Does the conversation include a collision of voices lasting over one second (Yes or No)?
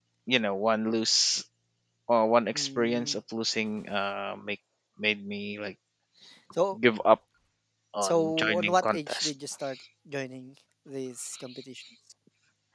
Yes